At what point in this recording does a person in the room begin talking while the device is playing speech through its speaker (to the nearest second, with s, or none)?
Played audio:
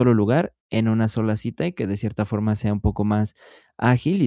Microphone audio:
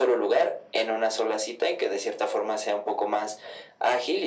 none